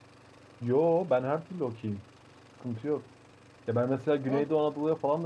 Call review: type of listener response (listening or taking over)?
listening